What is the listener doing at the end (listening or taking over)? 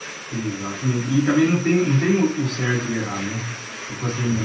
listening